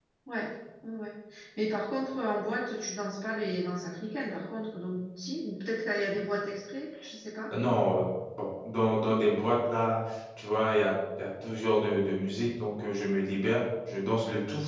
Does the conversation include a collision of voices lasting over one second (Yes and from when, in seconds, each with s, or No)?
No